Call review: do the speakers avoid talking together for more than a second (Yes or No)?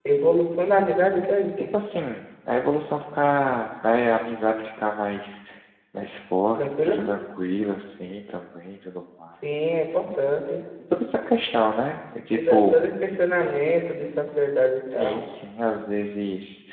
Yes